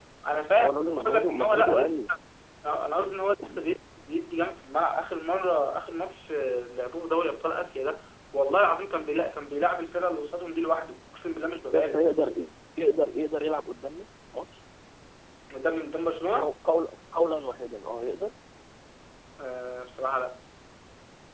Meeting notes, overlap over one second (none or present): present